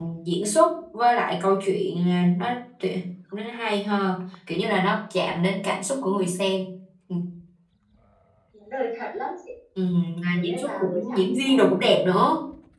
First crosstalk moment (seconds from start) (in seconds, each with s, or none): 10.3 s